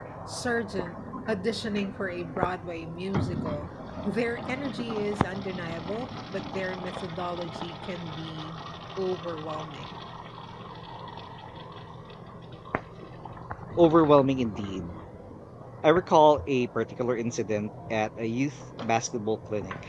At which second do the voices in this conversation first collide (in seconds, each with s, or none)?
none